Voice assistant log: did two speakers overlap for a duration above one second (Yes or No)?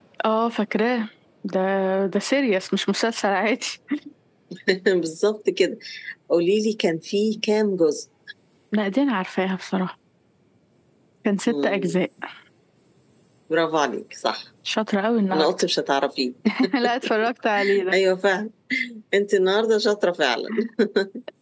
No